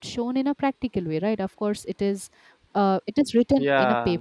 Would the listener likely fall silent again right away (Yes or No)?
Yes